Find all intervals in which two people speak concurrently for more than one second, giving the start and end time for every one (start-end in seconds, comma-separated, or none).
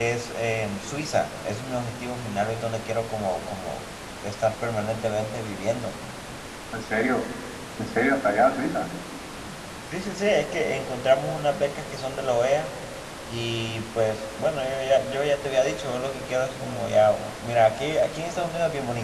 none